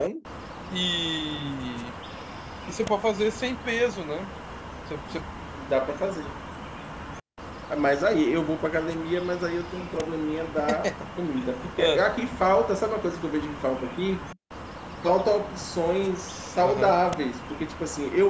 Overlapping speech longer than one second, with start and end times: none

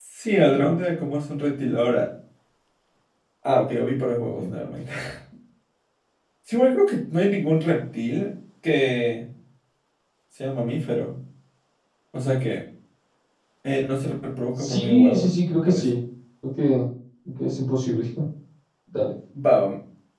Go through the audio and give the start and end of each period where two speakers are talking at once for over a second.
14.6-15.9

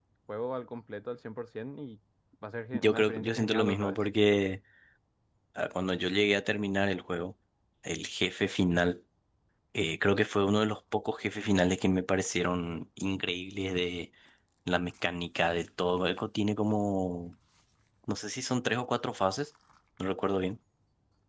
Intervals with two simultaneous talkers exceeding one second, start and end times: 2.7-4.0

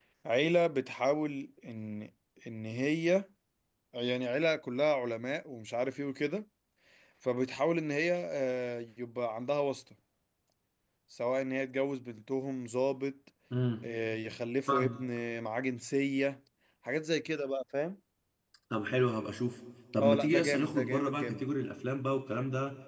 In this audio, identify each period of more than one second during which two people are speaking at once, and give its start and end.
20.0-21.4

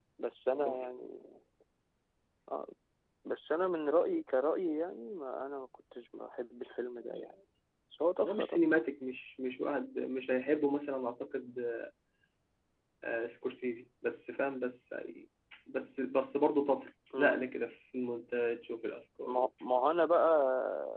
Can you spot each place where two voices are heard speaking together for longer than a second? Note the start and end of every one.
none

